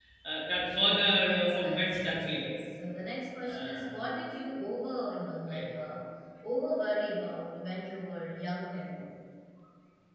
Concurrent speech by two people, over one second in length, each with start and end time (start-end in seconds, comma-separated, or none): 1.2-2.5